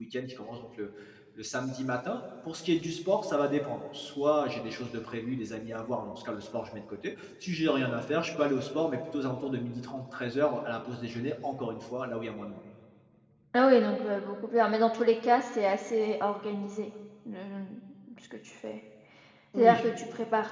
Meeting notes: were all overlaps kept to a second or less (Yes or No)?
Yes